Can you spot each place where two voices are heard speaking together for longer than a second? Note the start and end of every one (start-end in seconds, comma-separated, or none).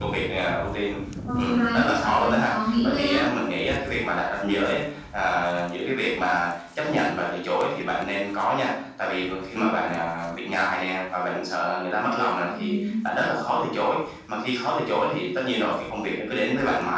1.4-3.2